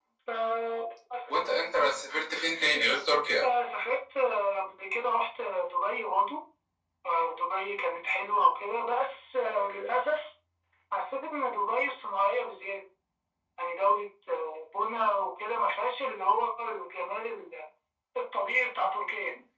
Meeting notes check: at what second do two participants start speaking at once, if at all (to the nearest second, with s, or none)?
none